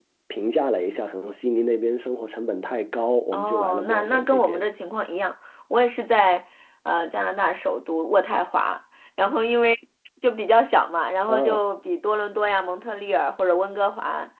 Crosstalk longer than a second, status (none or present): present